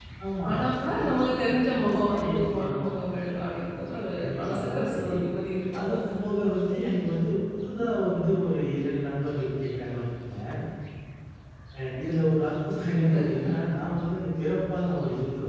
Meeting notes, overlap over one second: present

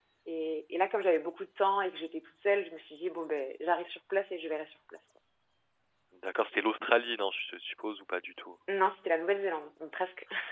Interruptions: none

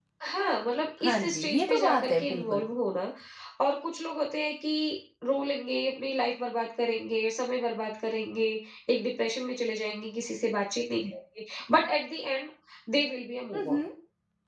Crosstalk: present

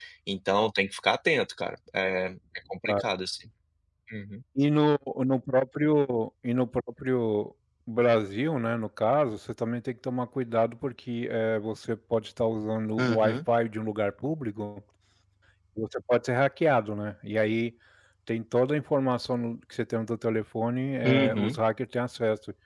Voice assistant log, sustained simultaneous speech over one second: none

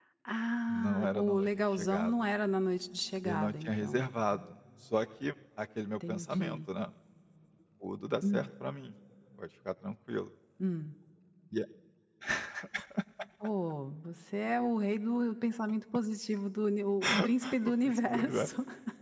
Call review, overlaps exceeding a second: present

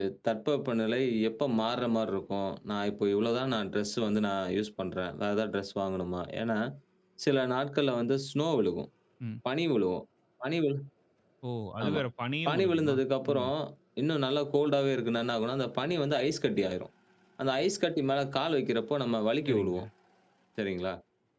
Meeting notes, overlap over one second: none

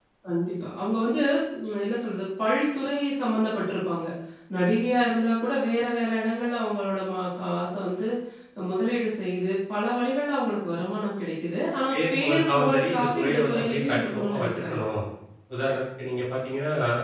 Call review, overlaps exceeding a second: present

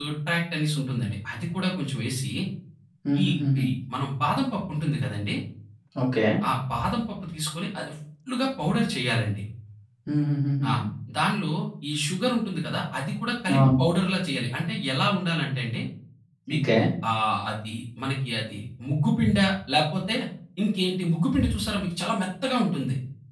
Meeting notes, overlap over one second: none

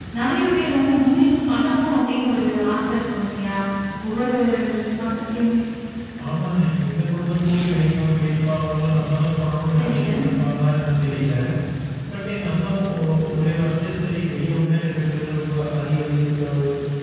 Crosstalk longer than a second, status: none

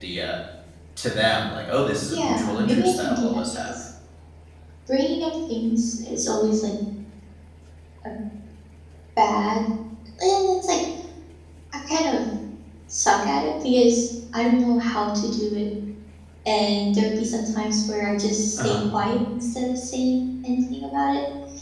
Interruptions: present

